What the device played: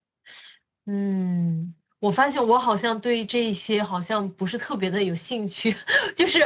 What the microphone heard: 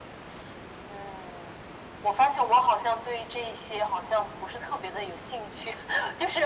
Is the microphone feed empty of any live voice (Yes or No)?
Yes